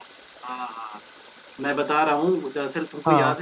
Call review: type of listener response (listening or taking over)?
listening